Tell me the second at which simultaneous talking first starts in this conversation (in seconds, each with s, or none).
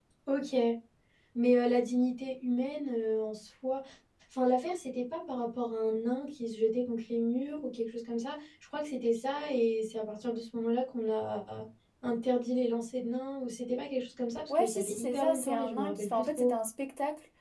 14.5 s